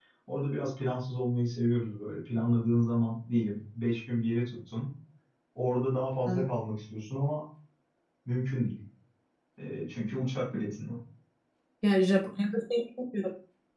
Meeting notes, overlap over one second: none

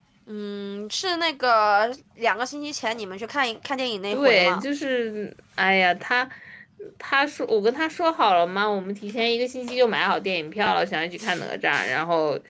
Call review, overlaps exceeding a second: none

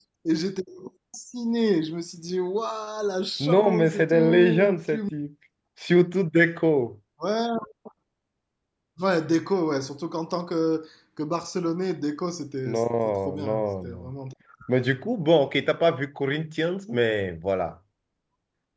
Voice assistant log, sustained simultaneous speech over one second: present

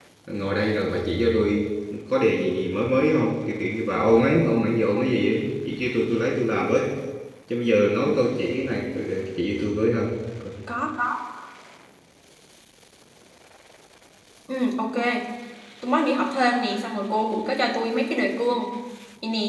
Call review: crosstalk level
none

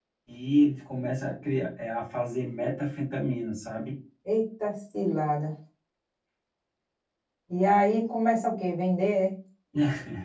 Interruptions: none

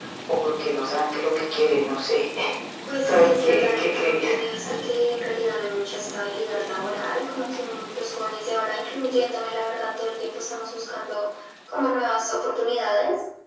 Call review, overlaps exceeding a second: present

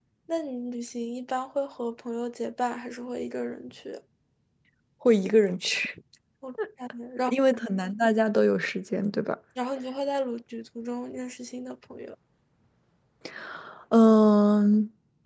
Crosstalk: none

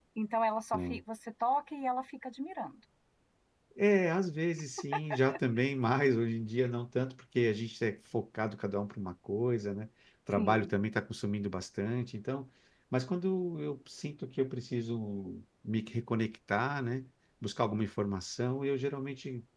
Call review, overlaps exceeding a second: none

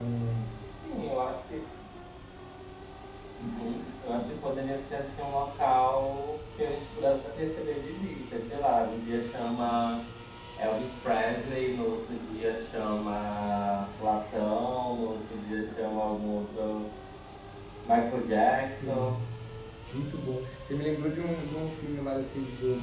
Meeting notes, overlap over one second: none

